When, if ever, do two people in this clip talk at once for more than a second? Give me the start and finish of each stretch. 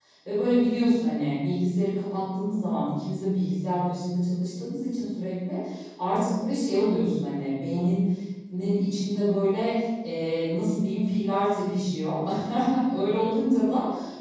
none

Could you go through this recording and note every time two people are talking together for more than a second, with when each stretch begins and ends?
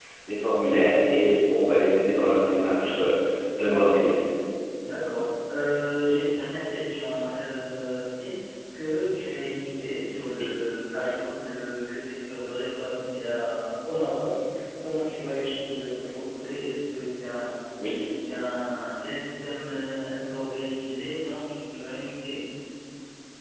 none

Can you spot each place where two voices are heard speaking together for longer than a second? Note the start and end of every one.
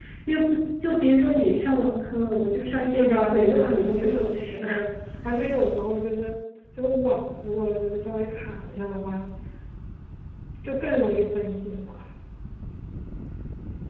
2.8-4.6

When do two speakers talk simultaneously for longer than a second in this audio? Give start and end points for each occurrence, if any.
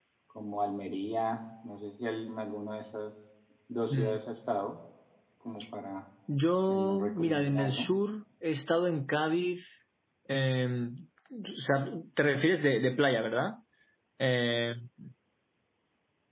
6.7-7.9

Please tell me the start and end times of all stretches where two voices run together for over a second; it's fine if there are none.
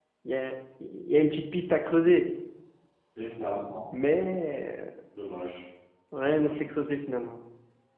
none

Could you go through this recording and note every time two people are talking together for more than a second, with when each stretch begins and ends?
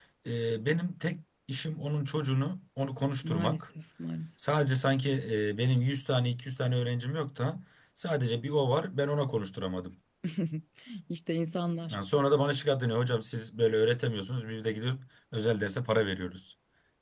none

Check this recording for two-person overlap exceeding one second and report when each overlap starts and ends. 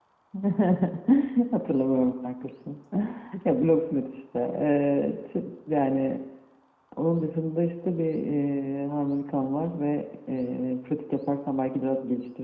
none

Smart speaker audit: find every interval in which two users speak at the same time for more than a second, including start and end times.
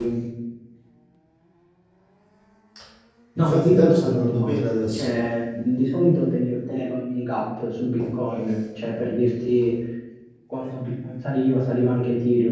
3.4-5.1

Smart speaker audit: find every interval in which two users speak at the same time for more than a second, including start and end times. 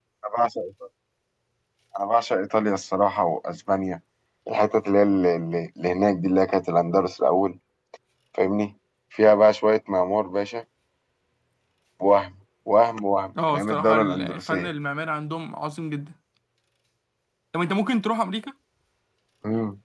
13.5-14.7

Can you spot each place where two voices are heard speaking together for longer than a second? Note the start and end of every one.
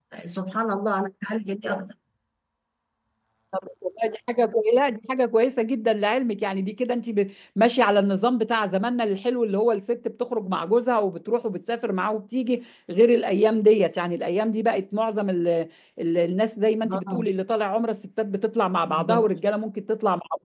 none

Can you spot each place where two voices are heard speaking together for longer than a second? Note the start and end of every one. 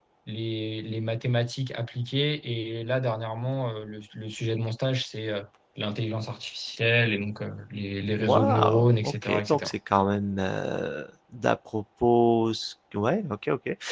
8.2-9.7

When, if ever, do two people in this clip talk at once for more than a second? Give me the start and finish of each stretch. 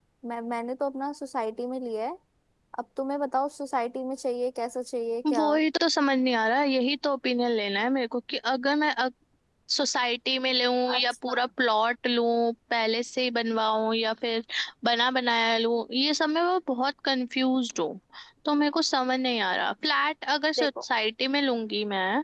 none

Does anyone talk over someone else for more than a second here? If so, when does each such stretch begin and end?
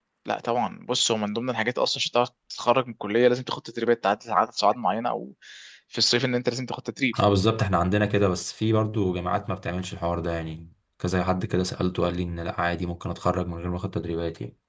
none

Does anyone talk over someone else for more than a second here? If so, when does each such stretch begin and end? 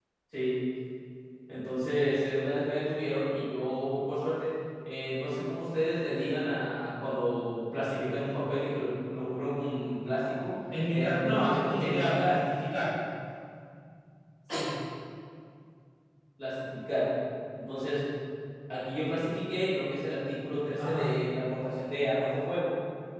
10.9-12.4

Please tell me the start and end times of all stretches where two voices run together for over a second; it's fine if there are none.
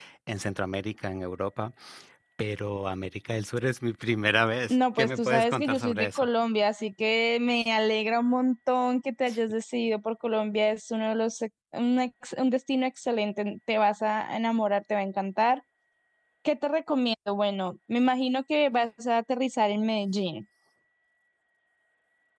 4.7-6.3

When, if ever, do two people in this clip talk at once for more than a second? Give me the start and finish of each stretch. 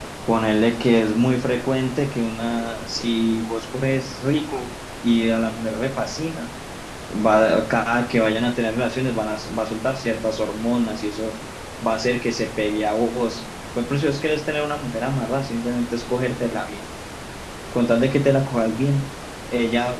none

